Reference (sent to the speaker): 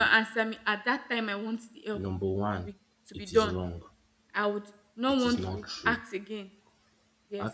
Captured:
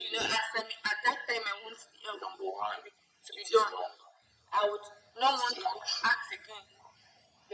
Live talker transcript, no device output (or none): none